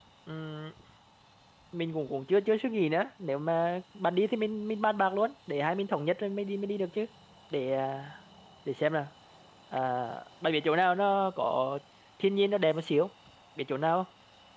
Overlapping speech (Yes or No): No